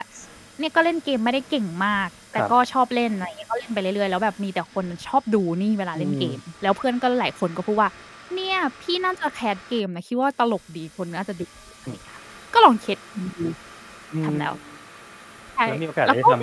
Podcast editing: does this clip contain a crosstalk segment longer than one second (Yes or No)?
No